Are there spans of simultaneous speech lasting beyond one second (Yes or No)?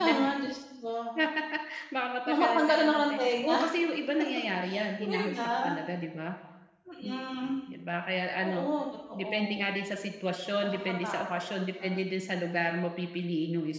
Yes